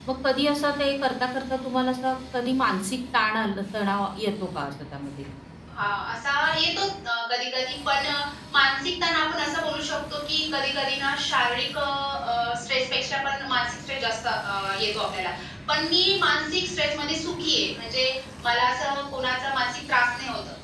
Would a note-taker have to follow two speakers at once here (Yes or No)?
No